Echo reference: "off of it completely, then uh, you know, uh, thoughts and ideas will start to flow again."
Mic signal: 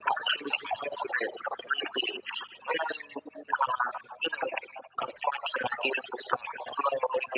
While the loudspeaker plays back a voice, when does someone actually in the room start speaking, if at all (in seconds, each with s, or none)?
none